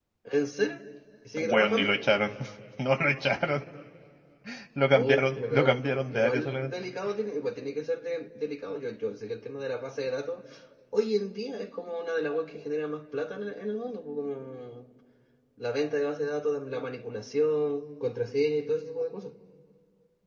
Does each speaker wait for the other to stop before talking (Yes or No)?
No